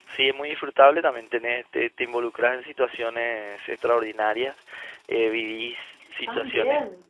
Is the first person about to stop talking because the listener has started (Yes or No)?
No